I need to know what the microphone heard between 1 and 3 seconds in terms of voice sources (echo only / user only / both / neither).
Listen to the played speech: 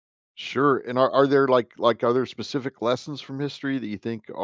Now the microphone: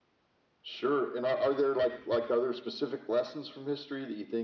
echo only